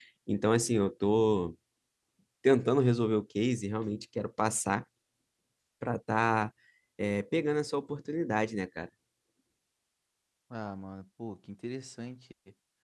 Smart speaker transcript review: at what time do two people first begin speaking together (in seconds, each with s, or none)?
none